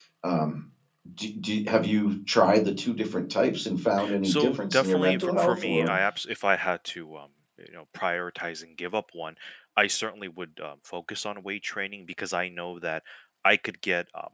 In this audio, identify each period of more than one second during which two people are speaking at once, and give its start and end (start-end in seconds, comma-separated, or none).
4.2-5.9